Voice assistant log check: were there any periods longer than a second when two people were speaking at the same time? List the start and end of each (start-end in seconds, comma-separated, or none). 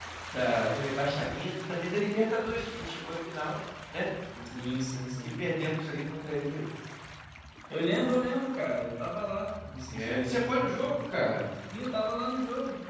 9.9-11.3